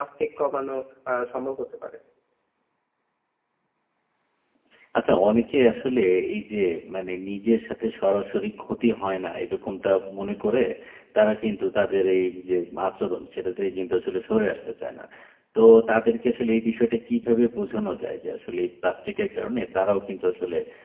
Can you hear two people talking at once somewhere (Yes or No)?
No